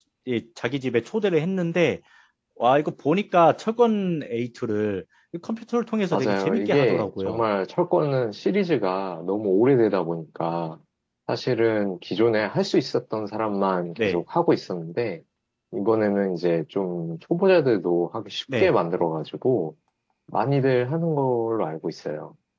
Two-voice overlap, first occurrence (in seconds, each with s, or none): 6.1 s